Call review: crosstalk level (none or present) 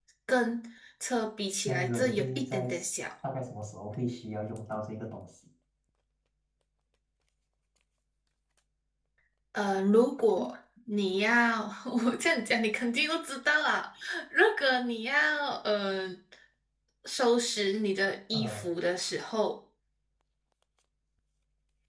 present